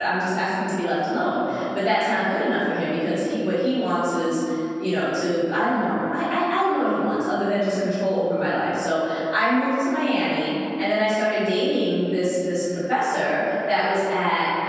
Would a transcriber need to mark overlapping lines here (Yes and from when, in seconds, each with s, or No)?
No